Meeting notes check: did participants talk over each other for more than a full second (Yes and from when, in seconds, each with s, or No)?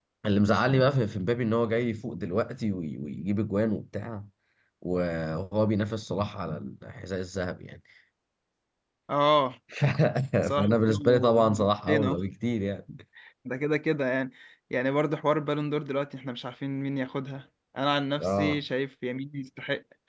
Yes, from 10.4 s